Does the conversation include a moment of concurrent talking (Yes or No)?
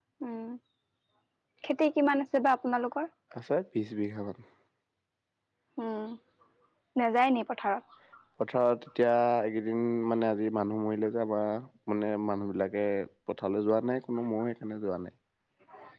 No